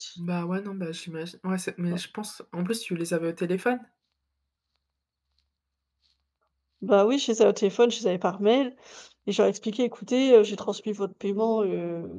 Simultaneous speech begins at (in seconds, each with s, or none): none